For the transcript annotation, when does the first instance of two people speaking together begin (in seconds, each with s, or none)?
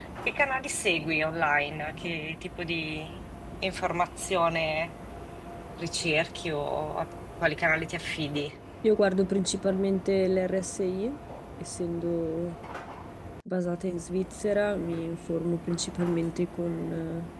none